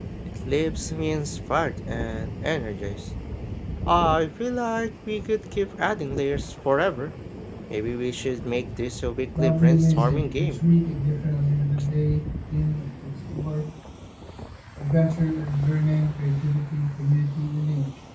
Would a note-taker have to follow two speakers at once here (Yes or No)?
Yes